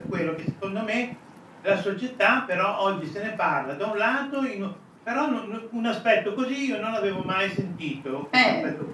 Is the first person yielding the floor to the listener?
No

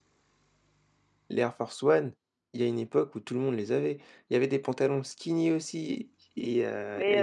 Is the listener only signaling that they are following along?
No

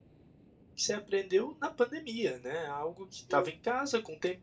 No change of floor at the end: Yes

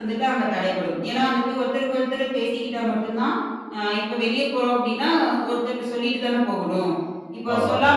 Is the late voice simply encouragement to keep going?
Yes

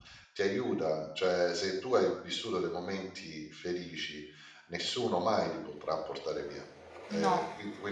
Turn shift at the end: No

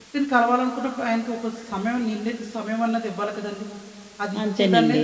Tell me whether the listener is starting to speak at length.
Yes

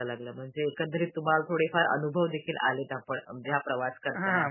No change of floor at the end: No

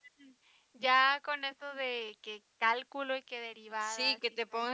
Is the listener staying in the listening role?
No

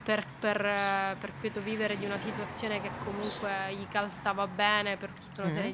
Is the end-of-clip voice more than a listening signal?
No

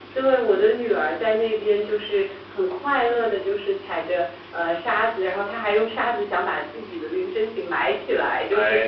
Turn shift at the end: No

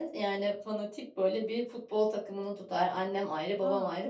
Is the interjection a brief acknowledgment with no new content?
Yes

